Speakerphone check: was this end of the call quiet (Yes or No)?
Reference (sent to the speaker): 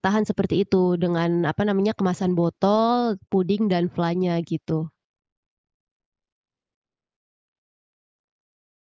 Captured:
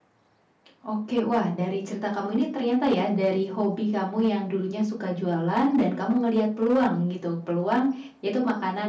No